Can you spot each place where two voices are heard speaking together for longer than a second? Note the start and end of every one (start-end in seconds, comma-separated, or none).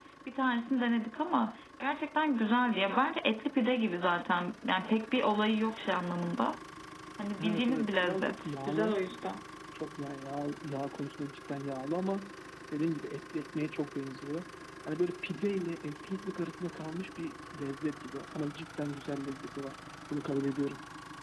7.4-8.9